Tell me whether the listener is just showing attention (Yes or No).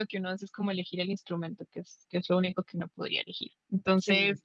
Yes